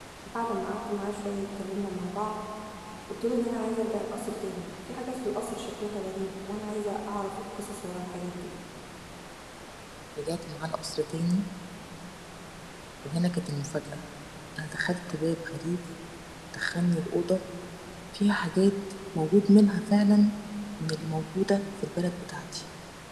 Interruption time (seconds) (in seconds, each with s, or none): none